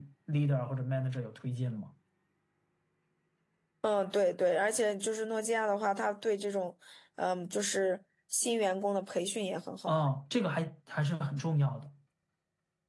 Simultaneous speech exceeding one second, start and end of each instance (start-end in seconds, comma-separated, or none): none